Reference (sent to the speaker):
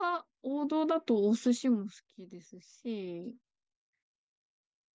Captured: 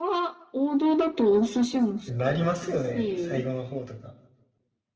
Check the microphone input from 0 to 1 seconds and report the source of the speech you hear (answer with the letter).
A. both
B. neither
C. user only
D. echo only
D